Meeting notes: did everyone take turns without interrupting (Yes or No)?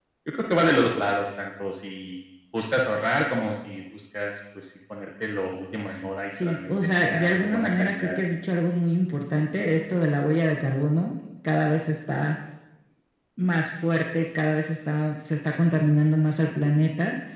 No